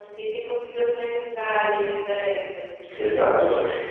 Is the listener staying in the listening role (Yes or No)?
No